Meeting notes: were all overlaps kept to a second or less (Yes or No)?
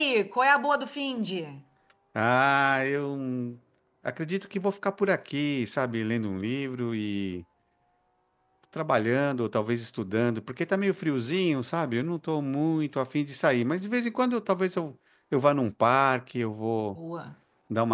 Yes